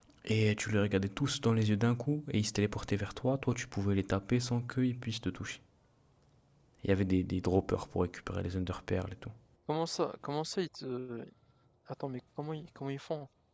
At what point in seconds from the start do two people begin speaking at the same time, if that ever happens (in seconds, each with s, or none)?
none